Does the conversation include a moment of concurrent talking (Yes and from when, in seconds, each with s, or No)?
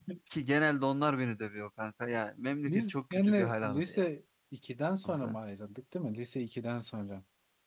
Yes, from 2.7 s